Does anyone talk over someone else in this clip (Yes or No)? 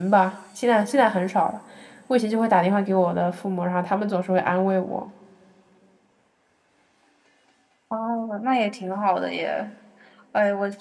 No